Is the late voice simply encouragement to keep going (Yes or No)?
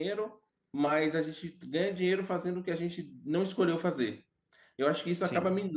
Yes